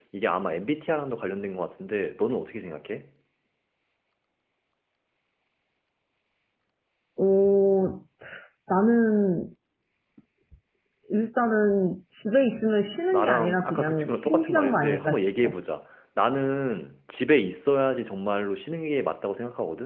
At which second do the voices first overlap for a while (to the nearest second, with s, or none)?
13 s